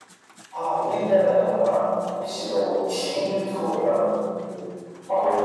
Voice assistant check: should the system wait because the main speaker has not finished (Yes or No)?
No